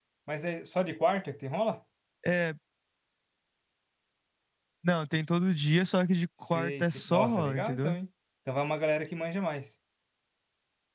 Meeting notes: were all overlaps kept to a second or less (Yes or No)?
No